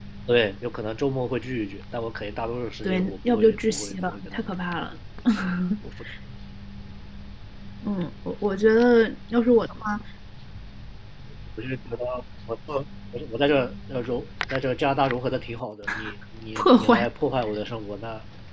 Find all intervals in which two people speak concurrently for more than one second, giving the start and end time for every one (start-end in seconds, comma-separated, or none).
2.8-4.4